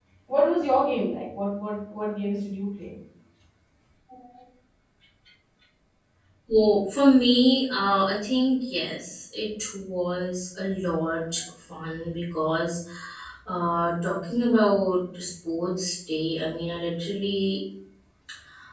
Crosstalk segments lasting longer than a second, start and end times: none

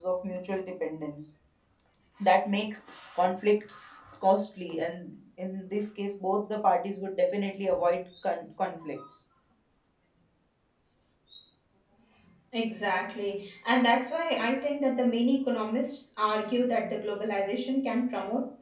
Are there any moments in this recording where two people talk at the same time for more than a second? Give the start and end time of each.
none

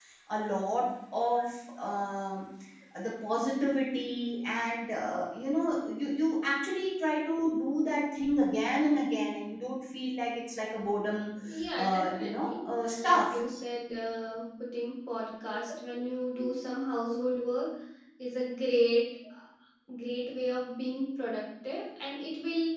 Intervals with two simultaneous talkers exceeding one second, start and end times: 11.8-13.4

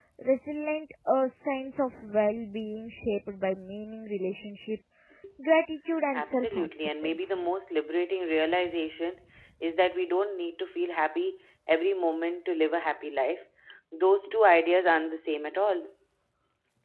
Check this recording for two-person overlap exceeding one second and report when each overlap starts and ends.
6.1-7.5

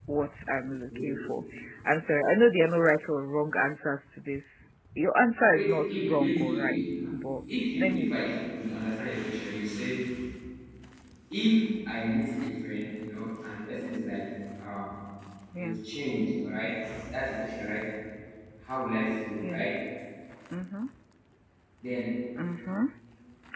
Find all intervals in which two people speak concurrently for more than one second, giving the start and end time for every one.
5.5-7.0

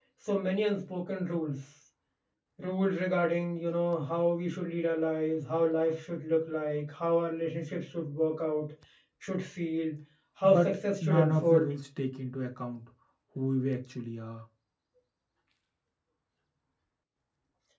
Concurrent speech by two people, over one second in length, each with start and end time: 10.4-11.7

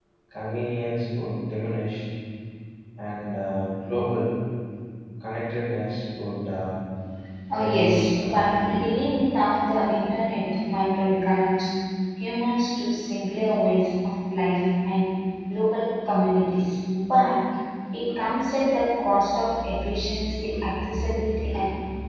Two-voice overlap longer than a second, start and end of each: 7.5-8.9

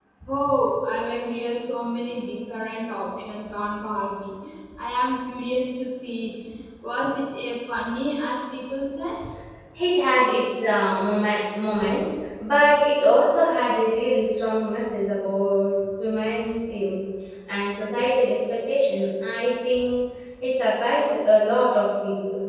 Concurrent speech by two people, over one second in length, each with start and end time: none

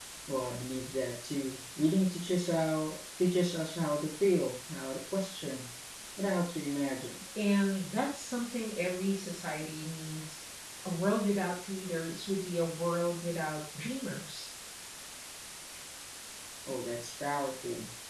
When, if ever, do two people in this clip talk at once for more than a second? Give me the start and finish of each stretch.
none

